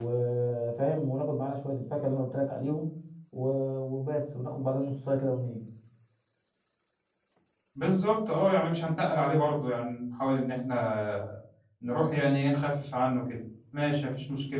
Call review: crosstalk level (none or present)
none